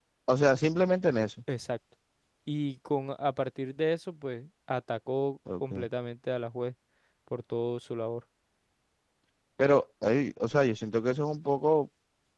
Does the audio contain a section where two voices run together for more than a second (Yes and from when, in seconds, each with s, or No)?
No